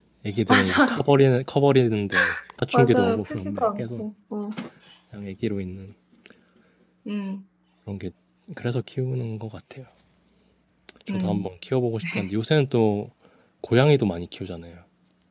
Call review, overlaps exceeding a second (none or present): present